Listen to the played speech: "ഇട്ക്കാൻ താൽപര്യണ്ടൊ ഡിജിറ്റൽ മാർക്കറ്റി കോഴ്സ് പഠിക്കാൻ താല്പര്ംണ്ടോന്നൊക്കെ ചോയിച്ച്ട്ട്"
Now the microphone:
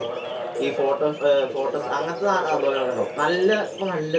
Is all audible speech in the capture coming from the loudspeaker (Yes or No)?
No